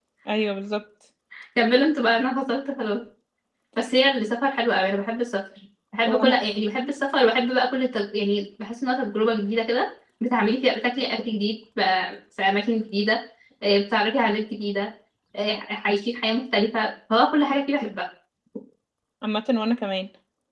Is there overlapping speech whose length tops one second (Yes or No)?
No